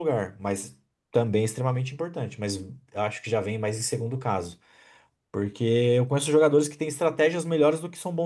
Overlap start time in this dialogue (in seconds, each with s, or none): none